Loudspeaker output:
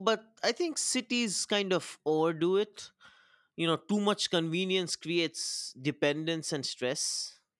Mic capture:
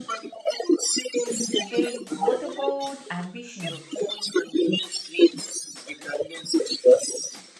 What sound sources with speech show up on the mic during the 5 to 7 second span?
echo only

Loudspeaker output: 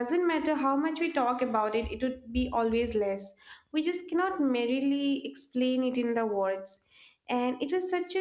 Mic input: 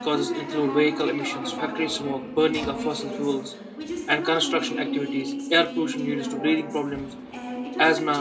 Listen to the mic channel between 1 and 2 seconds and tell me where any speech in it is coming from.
both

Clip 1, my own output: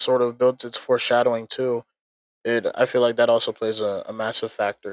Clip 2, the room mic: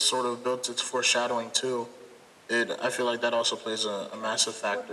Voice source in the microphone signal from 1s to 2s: echo only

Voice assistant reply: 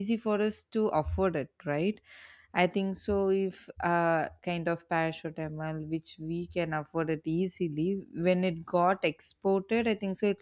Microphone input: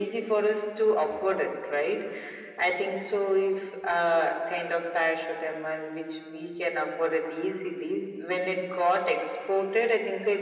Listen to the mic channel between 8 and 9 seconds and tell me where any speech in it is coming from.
echo only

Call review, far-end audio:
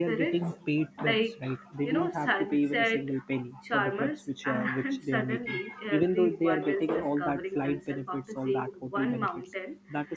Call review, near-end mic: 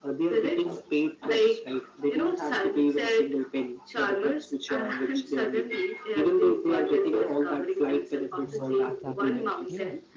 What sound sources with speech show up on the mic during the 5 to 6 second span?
echo only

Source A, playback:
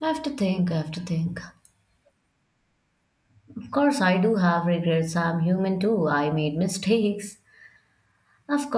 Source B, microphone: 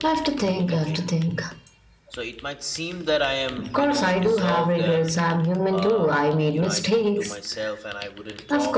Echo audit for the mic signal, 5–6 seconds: both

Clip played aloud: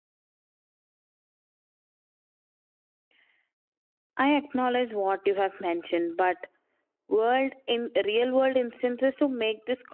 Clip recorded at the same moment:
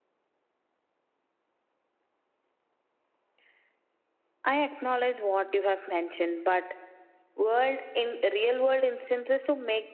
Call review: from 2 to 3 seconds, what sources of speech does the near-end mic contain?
neither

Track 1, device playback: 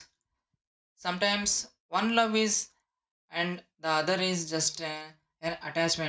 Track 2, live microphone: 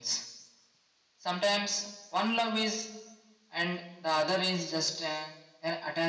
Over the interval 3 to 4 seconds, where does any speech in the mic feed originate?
echo only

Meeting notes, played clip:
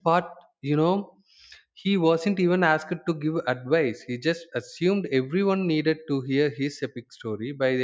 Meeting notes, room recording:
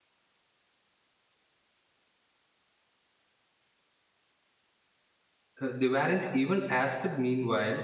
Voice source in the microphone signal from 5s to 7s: user only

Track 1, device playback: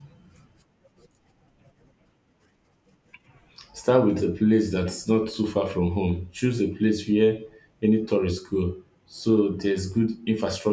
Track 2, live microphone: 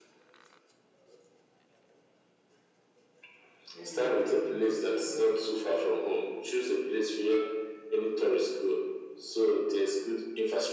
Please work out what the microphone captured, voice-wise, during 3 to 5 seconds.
both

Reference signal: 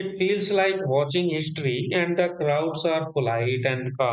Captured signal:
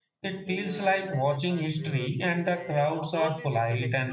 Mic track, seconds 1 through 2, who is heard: both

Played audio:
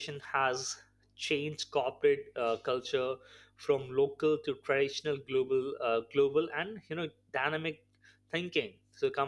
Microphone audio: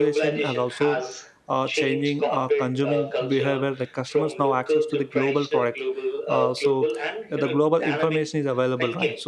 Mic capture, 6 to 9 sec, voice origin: both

